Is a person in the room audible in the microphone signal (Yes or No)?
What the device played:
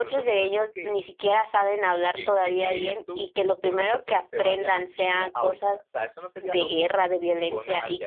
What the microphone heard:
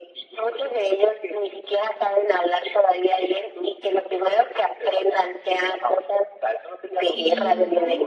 Yes